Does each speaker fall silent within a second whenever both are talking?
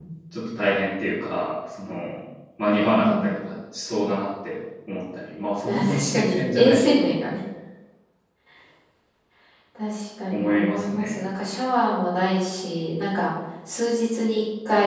No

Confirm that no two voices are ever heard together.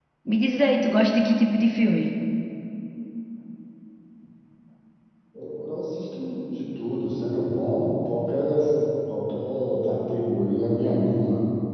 Yes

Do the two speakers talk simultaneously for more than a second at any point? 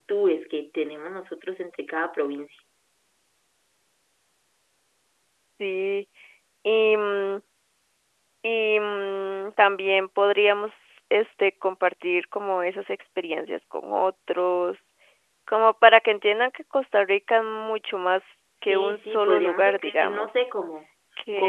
Yes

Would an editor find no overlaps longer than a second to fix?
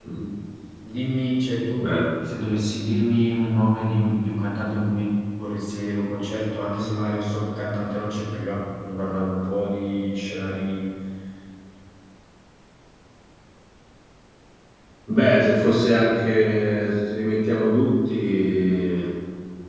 Yes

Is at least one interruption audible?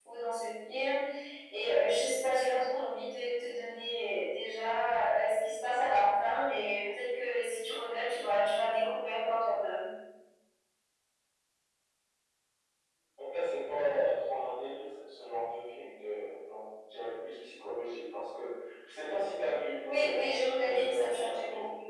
Yes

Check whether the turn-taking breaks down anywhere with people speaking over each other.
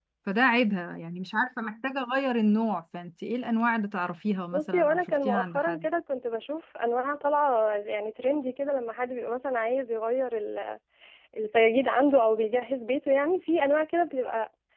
Yes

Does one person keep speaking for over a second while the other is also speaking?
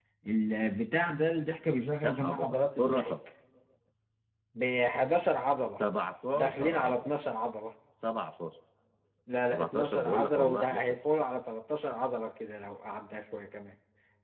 Yes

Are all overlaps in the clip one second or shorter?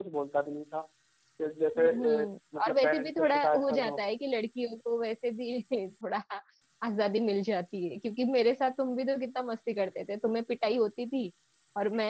No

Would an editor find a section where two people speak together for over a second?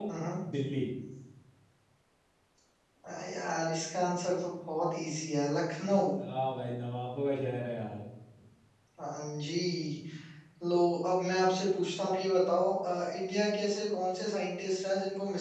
No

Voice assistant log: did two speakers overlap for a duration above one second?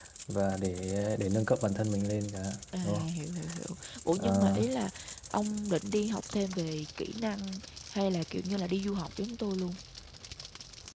No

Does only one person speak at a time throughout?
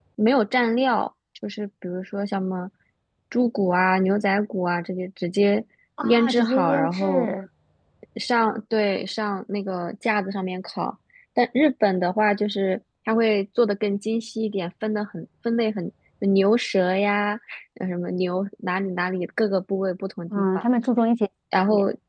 No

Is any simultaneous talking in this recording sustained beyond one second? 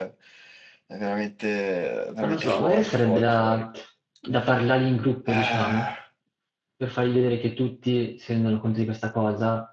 Yes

